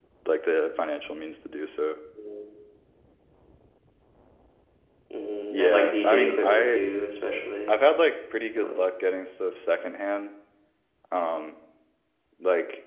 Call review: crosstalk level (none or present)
present